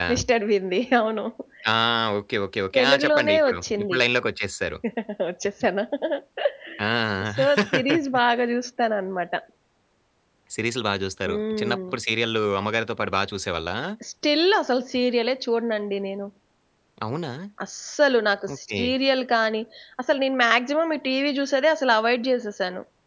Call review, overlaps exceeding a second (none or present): present